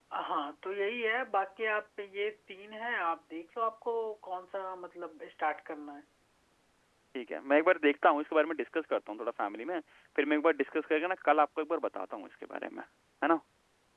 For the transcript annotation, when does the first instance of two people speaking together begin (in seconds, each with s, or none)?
none